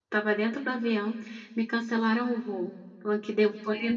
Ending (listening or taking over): listening